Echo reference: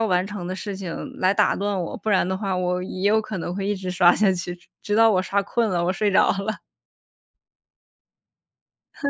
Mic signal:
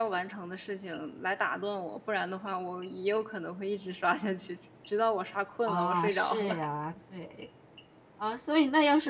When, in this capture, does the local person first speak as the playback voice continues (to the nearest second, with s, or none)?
6 s